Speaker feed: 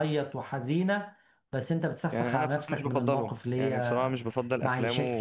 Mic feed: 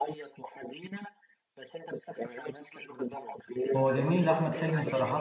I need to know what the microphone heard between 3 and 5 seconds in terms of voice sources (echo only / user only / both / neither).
both